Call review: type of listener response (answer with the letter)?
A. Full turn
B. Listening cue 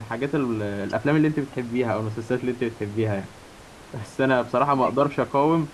B